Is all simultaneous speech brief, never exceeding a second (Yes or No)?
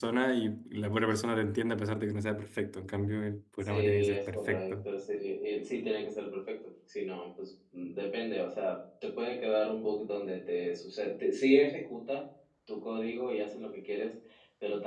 No